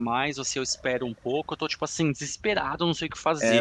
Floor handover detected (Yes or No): Yes